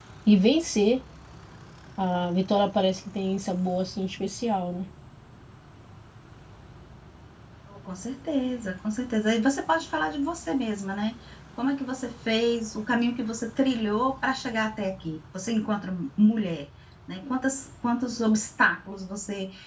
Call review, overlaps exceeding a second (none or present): none